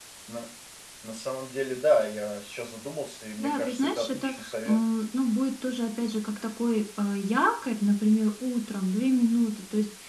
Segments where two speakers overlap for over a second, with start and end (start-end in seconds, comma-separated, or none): 3.4-4.8